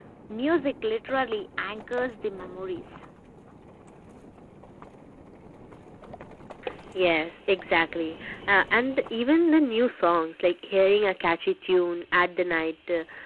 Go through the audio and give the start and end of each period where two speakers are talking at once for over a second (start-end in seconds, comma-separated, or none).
none